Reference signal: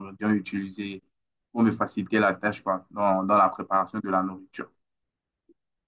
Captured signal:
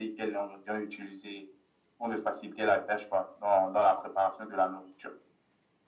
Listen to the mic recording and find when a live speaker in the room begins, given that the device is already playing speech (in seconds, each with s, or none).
none